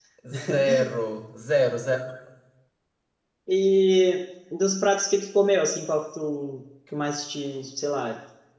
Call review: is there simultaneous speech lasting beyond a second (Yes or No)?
No